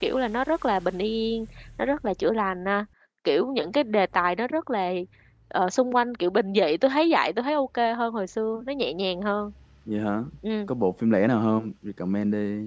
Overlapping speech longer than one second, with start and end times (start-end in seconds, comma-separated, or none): none